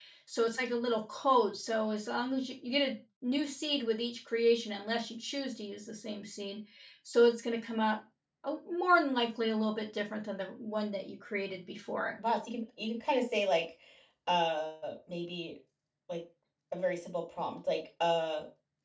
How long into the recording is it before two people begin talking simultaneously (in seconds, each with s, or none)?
none